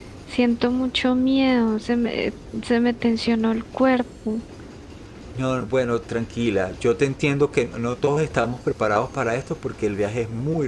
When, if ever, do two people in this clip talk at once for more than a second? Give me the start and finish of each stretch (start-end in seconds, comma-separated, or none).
none